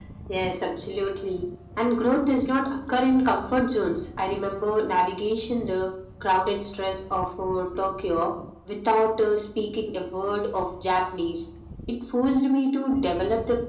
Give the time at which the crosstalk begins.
none

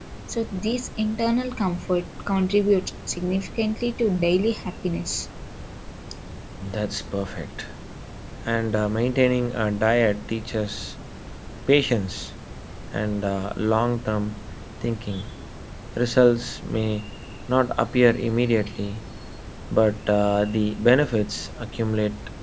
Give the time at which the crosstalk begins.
none

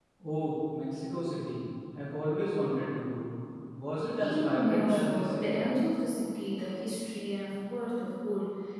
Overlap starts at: 4.2 s

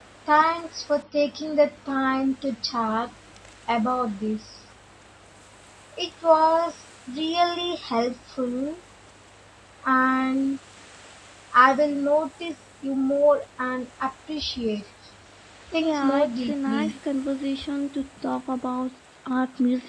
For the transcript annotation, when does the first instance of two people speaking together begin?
15.7 s

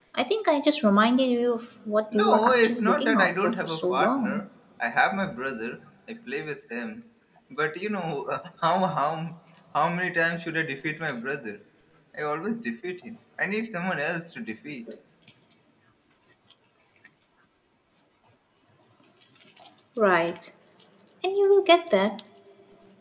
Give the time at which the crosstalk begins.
2.1 s

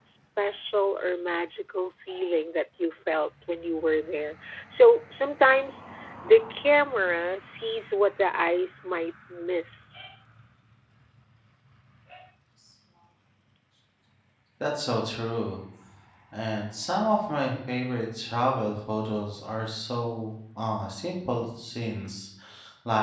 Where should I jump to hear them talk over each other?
none

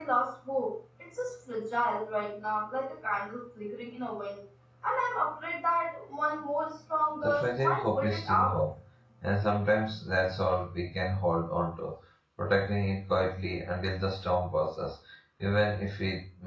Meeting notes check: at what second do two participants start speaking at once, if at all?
7.2 s

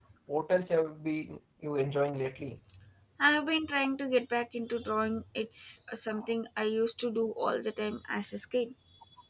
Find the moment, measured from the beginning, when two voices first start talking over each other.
none

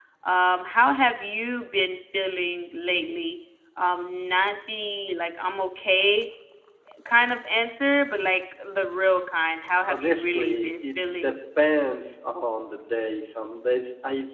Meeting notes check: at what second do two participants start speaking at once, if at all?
9.9 s

